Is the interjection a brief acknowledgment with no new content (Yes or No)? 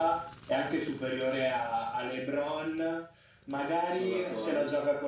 Yes